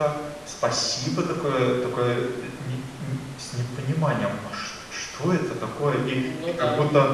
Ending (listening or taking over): listening